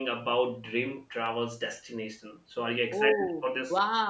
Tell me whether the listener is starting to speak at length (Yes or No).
Yes